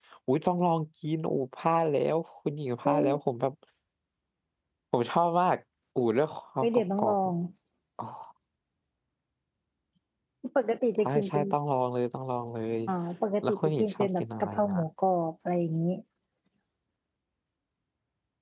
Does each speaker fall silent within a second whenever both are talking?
No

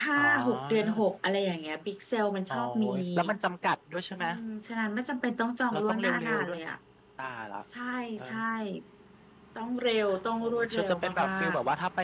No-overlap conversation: No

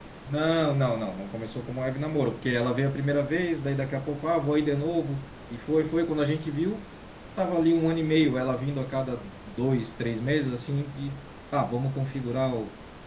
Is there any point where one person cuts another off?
No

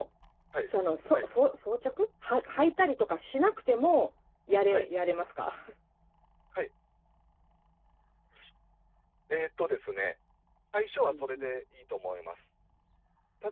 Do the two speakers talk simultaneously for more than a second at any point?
No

